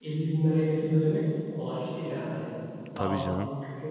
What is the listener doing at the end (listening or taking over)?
listening